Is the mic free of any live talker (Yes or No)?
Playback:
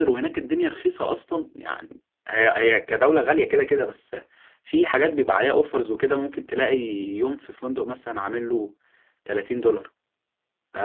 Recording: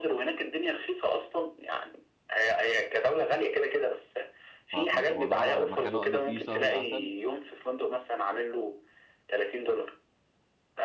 No